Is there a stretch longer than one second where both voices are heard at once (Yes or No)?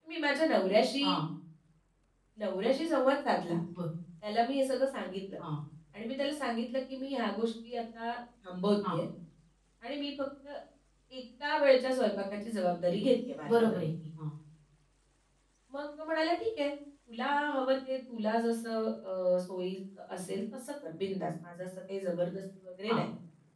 No